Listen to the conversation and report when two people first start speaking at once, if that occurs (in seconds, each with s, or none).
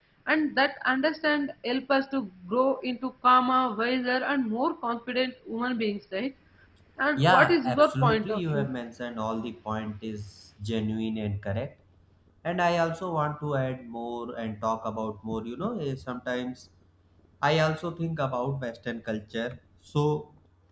7.2 s